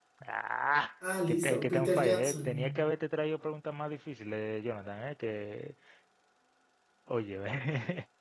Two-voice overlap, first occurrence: 1.3 s

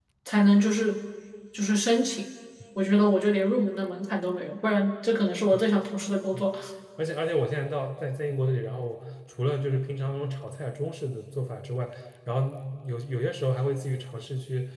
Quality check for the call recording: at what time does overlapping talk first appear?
none

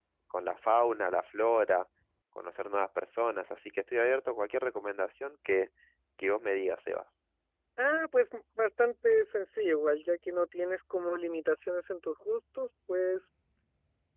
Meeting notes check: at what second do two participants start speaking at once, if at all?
none

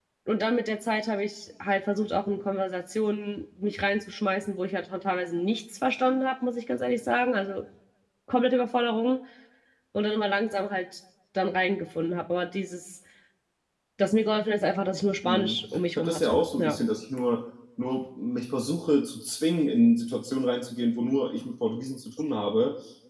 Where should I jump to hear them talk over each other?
15.2 s

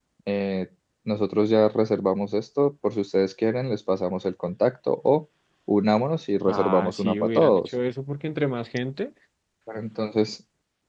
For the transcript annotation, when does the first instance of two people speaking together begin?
6.5 s

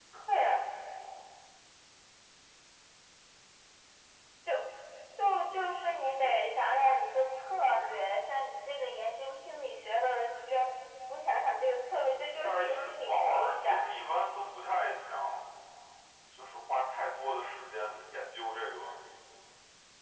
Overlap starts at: 12.4 s

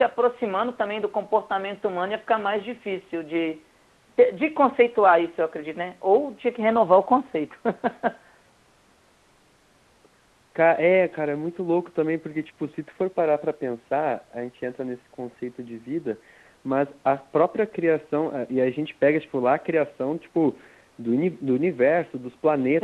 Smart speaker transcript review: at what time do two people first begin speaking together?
none

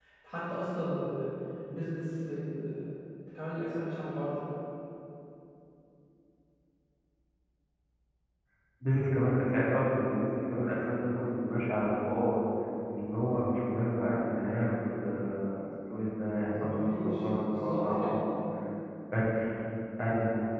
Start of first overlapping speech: 16.5 s

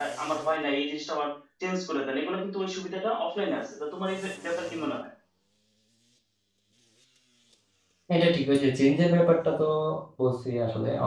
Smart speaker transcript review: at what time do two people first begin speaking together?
none

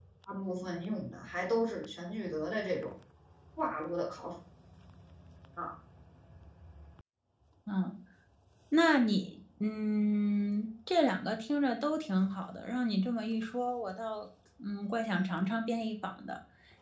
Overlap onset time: none

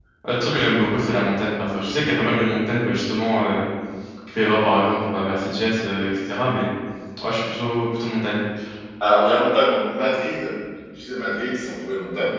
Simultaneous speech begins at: none

